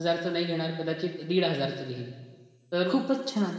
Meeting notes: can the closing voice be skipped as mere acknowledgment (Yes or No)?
Yes